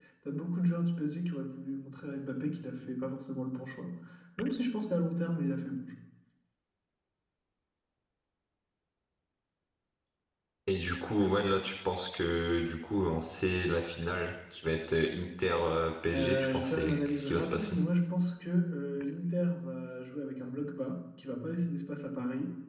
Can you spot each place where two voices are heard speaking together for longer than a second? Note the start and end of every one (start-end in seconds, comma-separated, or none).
16.1-17.8